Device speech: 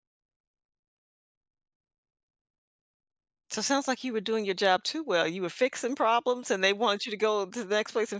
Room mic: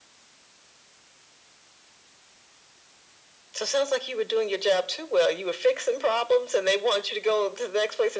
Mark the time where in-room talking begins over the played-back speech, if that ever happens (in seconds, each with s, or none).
none